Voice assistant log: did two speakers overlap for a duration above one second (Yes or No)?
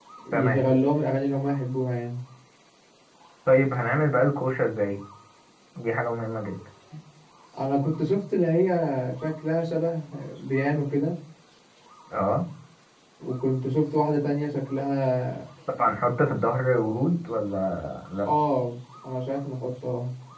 No